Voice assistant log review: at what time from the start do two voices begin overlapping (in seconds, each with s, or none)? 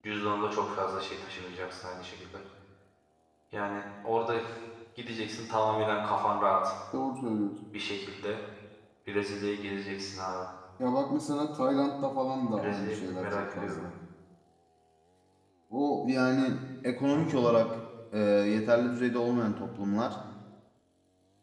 12.6 s